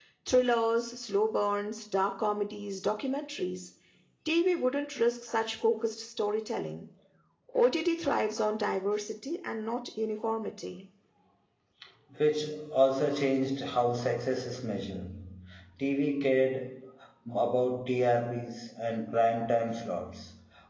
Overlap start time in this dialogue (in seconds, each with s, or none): none